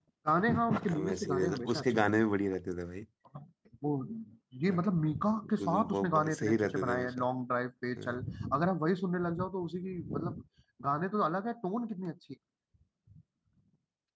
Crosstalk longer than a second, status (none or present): present